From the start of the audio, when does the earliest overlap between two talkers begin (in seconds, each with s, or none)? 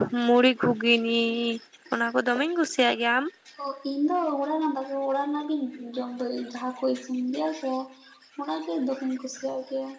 none